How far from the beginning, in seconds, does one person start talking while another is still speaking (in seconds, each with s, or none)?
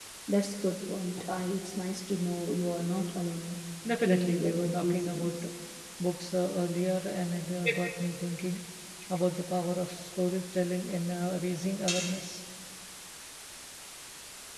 4.0 s